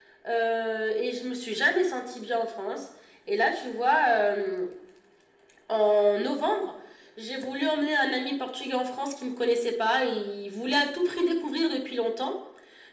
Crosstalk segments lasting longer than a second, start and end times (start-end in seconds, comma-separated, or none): none